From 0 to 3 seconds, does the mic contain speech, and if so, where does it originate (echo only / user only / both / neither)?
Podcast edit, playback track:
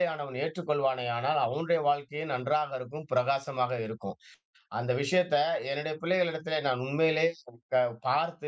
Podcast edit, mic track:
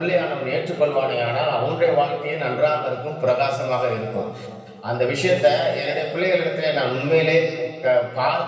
echo only